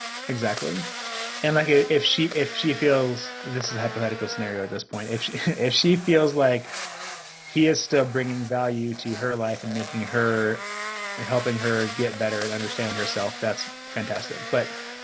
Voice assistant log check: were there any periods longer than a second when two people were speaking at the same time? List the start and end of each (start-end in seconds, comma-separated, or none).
none